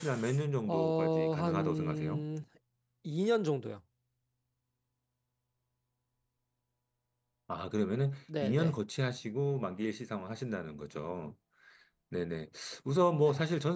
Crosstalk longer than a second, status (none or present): present